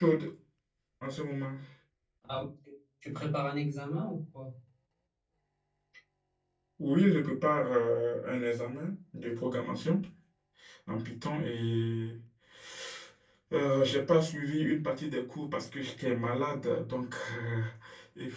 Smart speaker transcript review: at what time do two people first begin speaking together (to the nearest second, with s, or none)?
none